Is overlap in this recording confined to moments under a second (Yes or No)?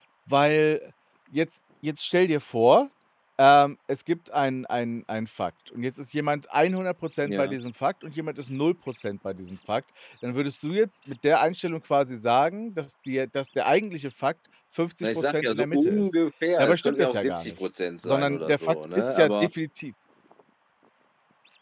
No